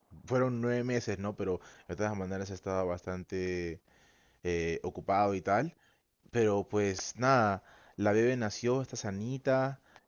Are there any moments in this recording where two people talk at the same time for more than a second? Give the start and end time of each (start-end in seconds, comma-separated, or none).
none